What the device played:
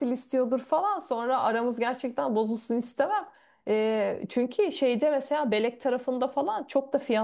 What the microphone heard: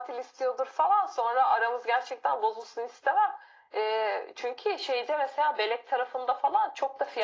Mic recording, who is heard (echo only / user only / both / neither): echo only